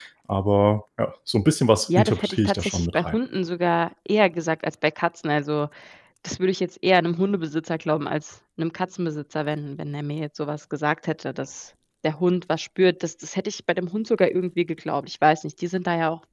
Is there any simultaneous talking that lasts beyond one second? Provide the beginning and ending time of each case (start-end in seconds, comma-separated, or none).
1.9-3.2